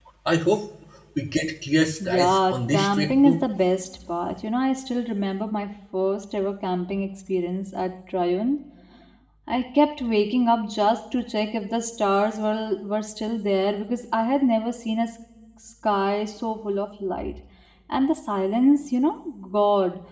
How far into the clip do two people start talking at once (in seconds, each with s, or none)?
2.0 s